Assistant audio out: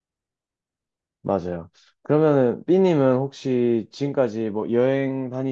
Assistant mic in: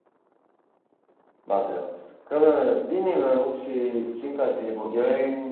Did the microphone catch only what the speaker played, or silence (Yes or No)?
Yes